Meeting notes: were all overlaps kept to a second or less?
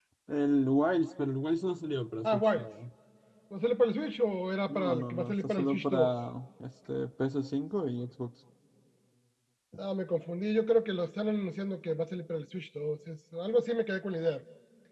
No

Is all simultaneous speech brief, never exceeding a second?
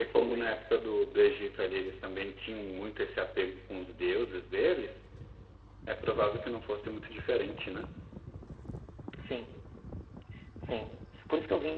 Yes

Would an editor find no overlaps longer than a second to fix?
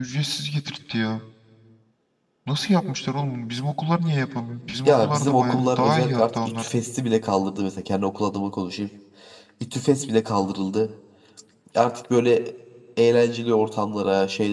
No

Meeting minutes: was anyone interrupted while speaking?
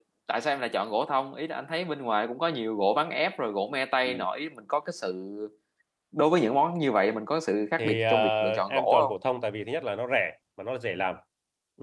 Yes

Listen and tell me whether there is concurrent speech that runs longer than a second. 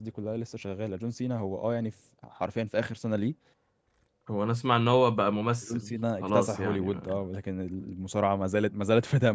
Yes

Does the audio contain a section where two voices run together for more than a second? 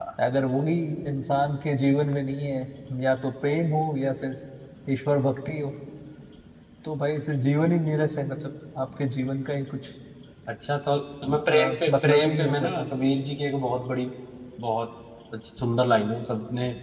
Yes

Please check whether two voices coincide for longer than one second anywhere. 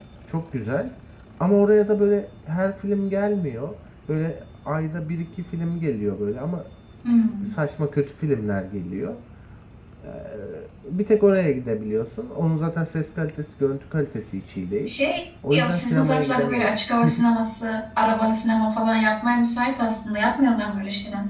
Yes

